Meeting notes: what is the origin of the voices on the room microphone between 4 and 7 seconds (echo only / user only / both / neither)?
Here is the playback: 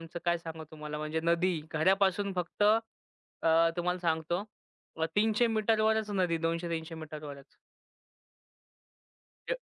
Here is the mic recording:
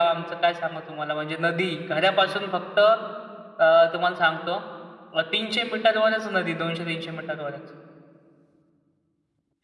echo only